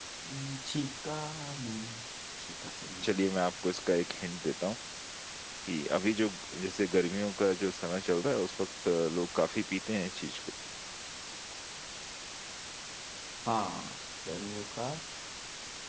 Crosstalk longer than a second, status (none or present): none